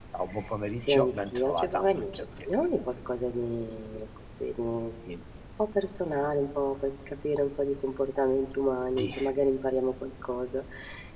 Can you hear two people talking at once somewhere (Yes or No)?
Yes